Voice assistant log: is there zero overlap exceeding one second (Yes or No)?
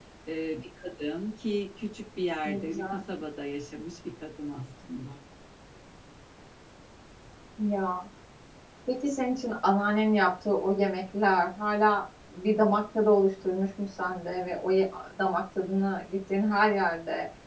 Yes